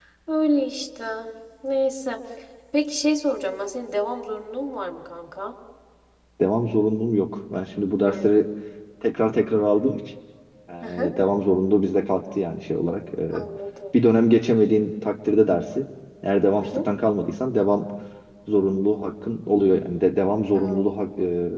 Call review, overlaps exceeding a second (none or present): none